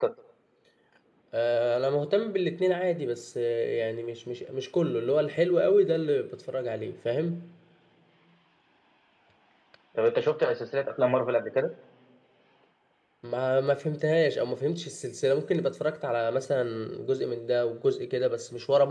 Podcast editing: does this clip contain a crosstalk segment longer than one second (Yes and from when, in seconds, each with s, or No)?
No